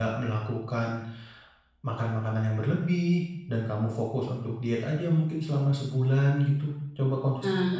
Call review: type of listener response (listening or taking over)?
listening